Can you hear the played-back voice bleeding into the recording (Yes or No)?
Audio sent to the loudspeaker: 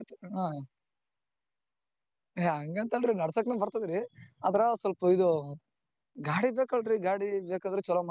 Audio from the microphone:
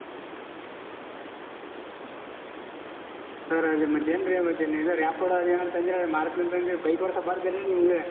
No